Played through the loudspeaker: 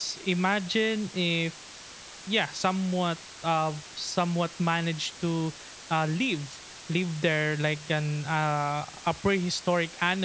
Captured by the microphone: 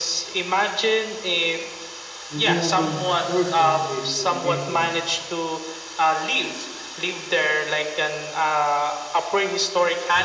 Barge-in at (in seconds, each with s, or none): 2.3 s